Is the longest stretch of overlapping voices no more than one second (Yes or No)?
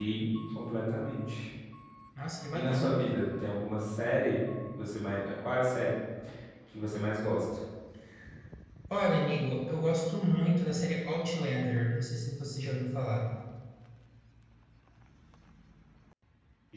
Yes